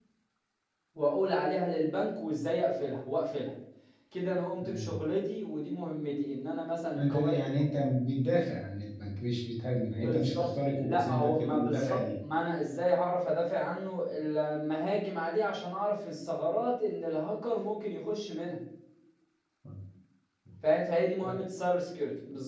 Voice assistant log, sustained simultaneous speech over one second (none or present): present